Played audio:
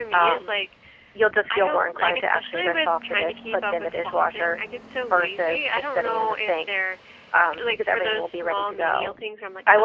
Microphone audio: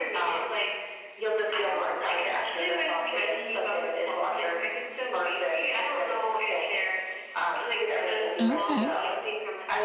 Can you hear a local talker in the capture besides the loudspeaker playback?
Yes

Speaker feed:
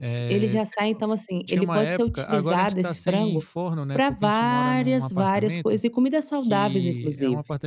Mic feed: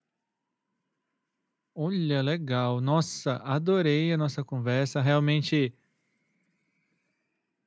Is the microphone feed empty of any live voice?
No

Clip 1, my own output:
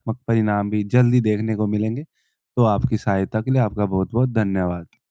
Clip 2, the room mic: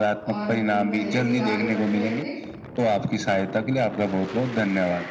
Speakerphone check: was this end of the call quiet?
No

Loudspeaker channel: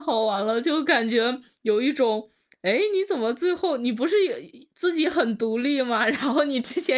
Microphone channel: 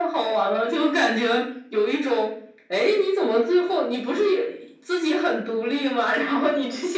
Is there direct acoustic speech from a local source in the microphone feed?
No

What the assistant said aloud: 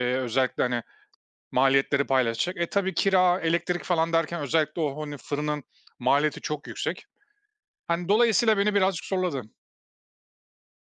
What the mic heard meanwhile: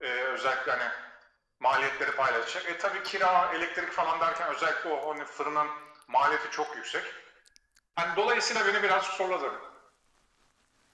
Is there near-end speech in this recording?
No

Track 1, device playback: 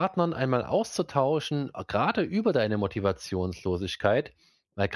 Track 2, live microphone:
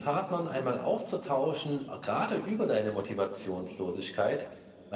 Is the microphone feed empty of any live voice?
Yes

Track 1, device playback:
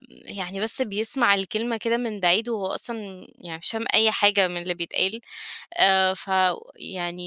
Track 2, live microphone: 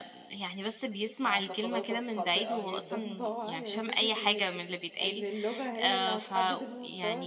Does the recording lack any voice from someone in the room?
No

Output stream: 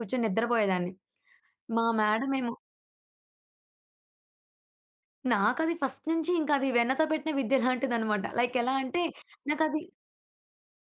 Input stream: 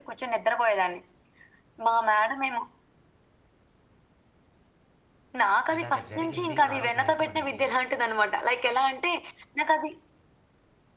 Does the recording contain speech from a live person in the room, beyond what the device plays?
Yes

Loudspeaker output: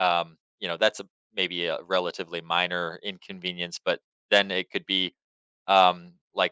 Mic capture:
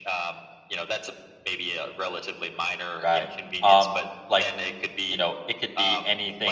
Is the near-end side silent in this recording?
No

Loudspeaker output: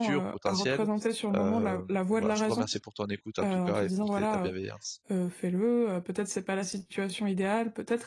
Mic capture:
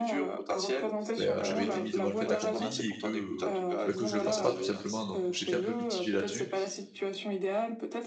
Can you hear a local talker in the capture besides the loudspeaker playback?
Yes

